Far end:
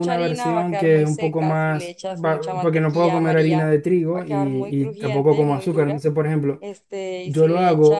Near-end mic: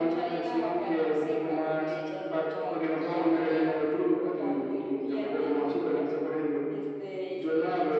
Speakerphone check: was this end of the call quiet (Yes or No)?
Yes